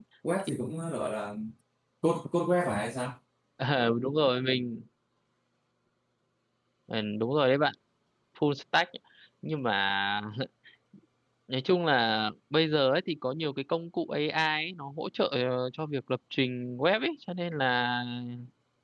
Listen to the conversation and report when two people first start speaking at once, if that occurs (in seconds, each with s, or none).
none